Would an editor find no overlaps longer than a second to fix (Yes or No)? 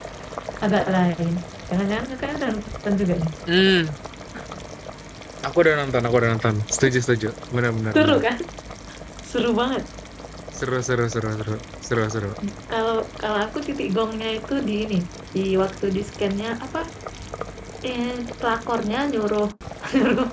Yes